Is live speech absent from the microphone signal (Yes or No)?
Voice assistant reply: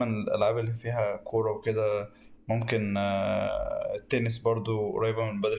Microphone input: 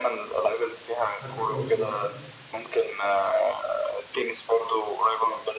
No